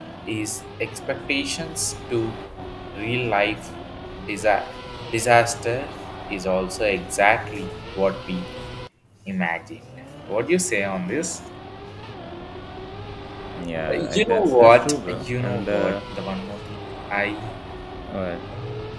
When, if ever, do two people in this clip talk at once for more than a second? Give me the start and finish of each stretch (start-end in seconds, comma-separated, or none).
13.9-16.0